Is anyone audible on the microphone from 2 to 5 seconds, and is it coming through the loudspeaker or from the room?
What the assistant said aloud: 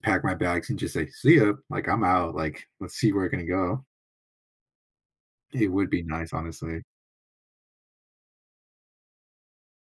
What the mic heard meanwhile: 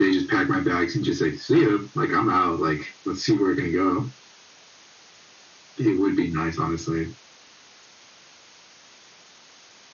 echo only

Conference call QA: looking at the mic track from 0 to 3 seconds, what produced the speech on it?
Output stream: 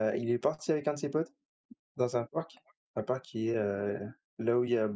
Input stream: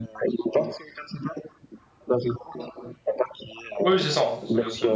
echo only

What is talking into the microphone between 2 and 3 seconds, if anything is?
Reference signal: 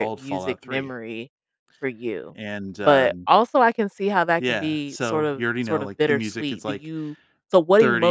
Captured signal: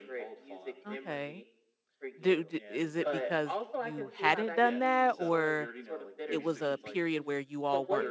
both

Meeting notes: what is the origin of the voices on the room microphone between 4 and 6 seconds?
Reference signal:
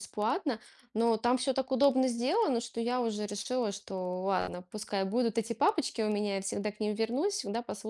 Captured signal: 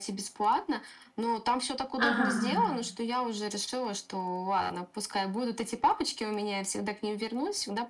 echo only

